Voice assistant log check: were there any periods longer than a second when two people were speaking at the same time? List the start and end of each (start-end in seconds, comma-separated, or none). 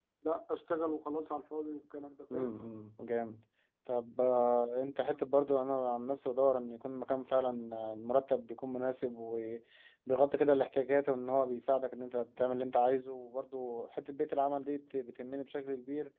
none